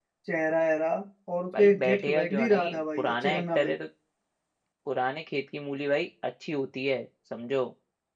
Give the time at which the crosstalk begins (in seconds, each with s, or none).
1.5 s